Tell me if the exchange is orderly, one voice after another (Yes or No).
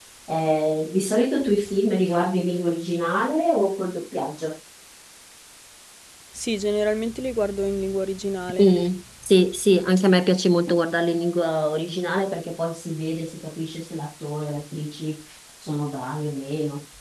Yes